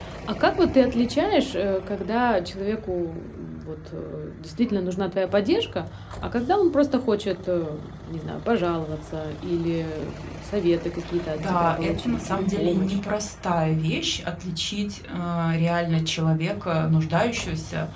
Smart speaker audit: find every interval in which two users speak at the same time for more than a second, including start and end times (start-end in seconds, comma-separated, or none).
11.4-13.0